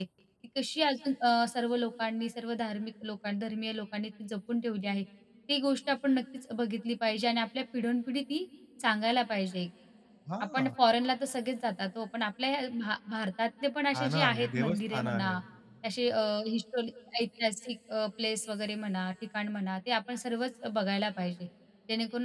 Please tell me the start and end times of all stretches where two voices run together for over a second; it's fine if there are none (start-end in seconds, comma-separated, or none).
13.9-15.4